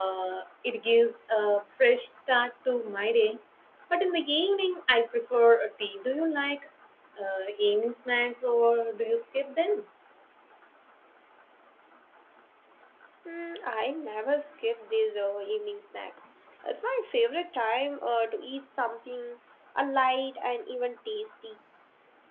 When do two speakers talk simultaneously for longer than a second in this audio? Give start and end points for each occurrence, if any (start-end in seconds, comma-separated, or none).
none